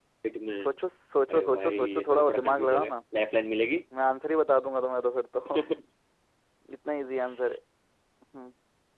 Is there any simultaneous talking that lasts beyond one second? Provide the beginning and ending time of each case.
1.3-2.9

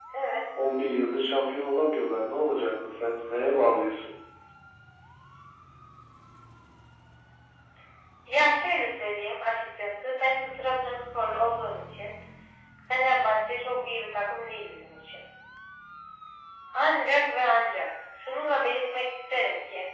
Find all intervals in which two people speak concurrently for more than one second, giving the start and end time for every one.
none

